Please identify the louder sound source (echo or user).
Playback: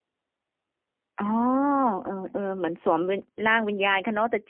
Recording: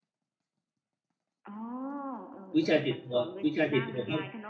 user